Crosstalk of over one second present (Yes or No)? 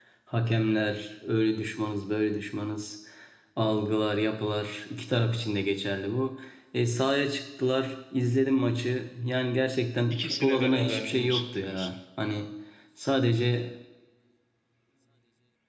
Yes